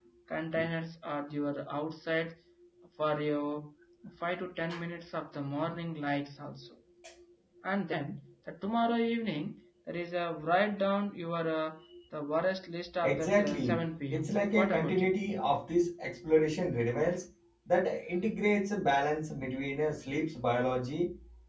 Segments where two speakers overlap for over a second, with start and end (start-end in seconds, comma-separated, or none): 13.0-15.1